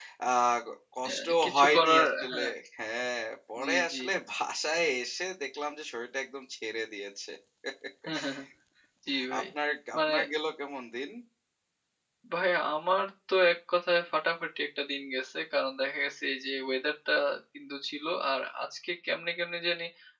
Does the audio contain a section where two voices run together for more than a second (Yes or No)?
Yes